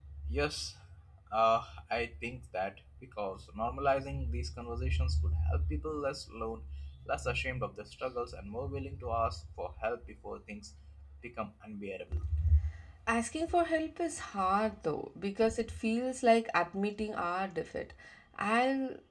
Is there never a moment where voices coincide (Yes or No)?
Yes